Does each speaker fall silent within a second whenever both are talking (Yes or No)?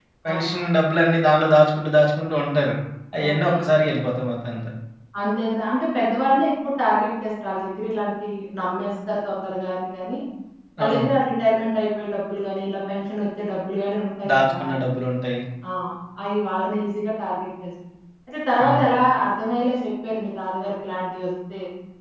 Yes